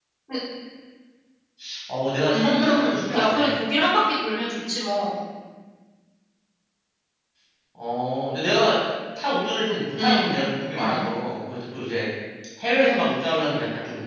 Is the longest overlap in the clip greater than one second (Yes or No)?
Yes